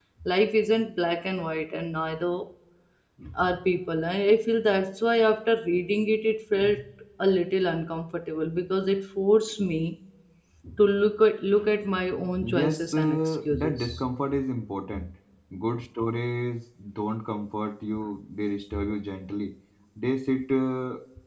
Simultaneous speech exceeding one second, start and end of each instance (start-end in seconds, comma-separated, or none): 12.4-14.1